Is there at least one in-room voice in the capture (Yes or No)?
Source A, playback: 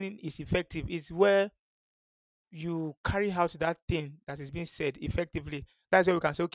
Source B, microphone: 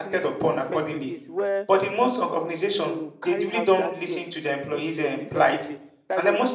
Yes